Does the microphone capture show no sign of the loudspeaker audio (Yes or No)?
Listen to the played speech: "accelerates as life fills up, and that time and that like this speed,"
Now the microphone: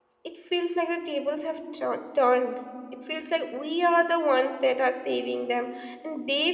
Yes